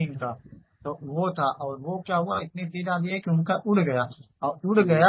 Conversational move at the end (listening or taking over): listening